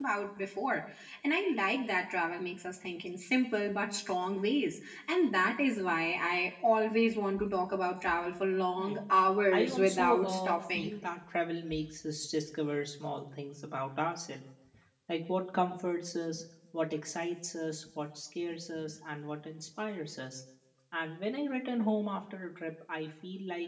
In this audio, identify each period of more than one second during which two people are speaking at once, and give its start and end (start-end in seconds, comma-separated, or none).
9.5-10.9